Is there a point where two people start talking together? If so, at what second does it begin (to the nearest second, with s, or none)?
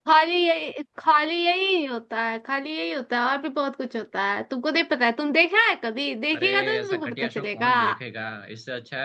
6 s